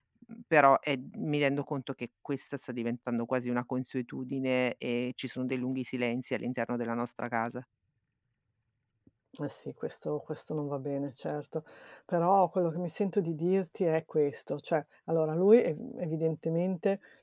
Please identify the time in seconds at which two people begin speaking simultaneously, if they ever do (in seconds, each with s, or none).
none